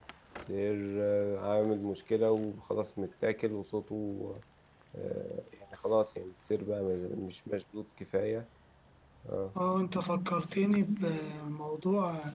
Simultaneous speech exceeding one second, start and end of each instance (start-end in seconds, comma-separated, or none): none